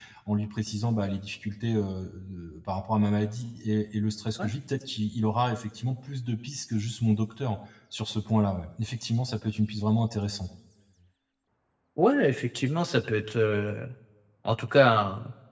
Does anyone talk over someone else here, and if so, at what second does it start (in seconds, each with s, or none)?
none